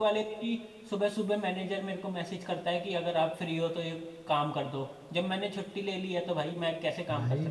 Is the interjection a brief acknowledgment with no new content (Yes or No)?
No